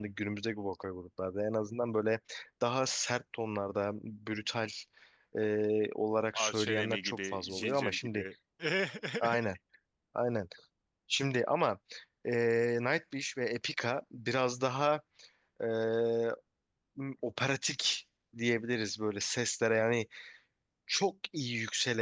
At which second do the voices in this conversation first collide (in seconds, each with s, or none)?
6.3 s